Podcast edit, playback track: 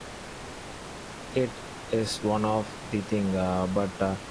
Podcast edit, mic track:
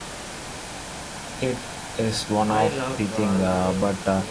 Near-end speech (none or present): present